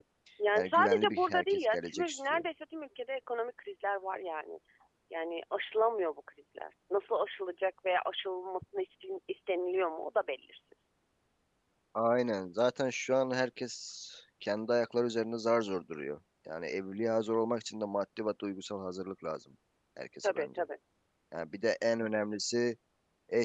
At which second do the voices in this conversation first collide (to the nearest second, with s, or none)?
1 s